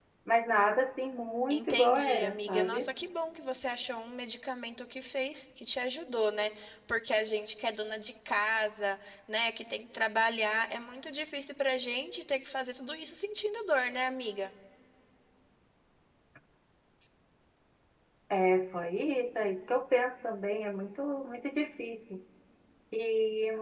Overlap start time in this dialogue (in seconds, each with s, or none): 1.5 s